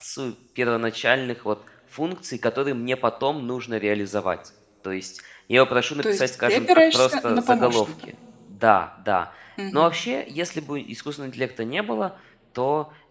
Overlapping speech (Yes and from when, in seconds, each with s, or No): Yes, from 6.0 s